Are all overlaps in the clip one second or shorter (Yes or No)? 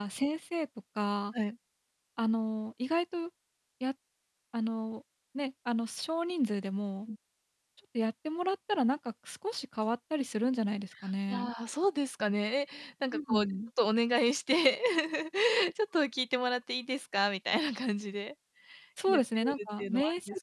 No